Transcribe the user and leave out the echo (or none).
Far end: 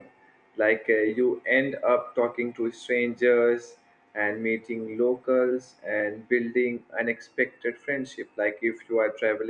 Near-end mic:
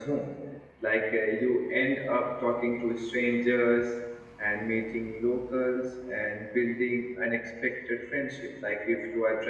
none